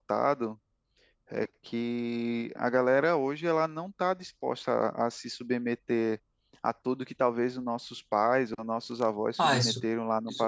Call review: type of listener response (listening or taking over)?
taking over